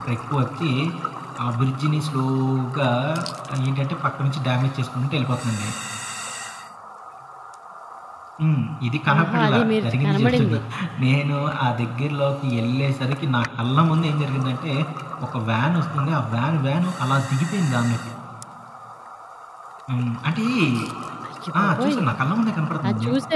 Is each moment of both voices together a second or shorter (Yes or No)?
No